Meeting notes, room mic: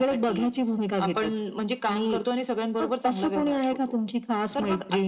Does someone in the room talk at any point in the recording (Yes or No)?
No